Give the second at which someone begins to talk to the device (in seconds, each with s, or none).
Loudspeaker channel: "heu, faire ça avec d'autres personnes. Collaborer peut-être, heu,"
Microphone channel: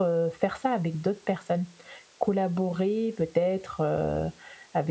none